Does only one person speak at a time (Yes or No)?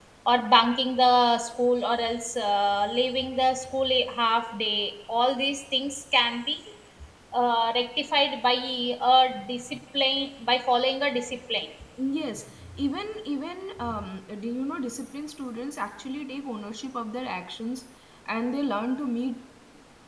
Yes